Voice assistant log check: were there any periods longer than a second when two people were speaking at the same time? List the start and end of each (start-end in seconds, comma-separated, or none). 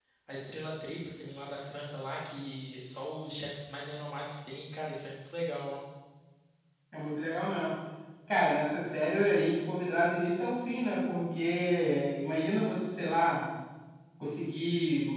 none